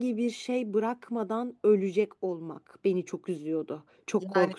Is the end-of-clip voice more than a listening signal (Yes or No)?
Yes